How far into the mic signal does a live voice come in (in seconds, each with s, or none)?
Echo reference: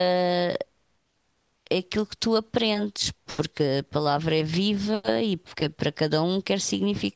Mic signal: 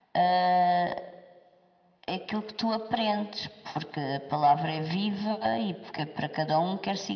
none